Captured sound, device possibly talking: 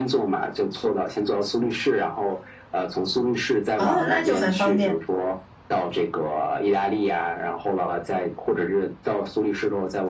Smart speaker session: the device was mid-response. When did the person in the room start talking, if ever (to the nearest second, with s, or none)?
4 s